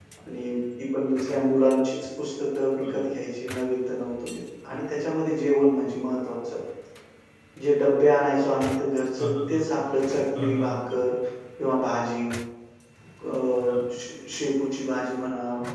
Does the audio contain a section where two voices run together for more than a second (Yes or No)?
No